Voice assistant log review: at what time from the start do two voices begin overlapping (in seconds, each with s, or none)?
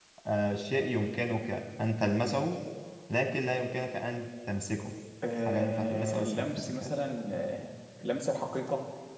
5.5 s